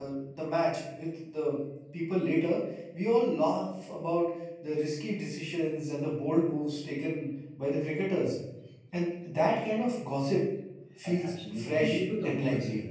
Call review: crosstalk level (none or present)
present